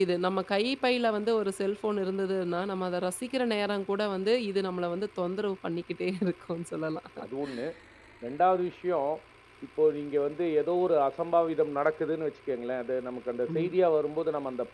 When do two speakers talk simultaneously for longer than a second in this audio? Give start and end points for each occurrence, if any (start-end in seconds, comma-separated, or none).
none